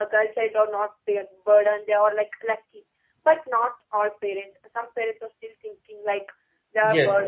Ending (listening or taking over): taking over